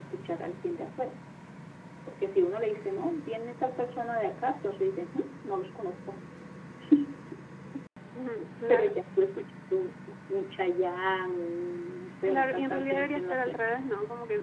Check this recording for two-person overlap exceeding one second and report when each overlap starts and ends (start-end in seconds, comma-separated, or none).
12.2-13.6